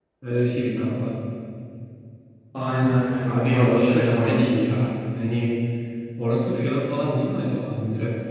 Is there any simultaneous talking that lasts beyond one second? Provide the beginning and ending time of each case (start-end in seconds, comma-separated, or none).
3.2-4.5